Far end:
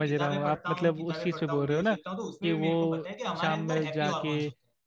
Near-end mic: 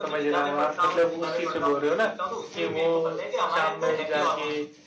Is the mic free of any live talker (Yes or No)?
Yes